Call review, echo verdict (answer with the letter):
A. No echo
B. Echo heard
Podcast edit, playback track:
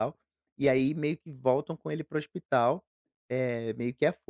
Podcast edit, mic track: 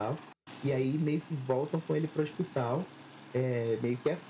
B